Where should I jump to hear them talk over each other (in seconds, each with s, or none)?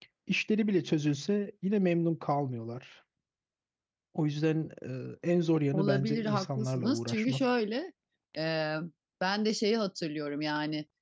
5.7 s